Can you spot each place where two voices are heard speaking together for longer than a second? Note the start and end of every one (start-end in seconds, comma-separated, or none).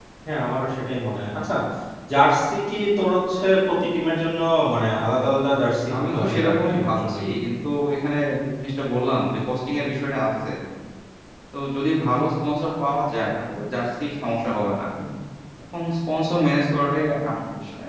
5.9-7.2